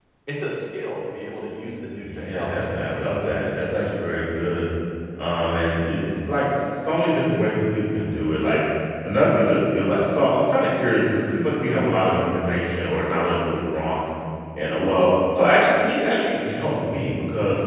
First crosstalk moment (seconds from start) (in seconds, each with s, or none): 2.0 s